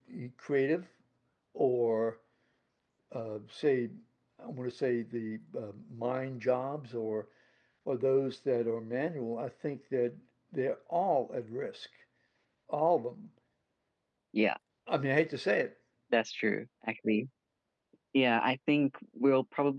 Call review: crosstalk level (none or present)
none